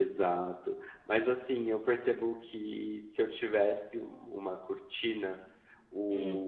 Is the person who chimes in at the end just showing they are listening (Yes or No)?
Yes